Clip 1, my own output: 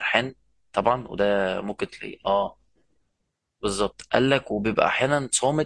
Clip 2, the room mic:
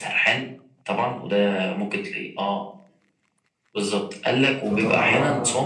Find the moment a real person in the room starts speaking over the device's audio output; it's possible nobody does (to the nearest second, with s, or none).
5 s